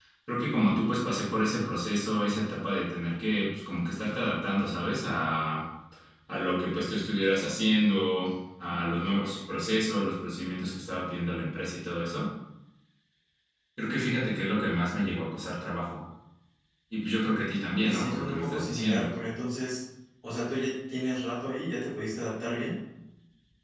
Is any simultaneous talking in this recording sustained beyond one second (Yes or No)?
Yes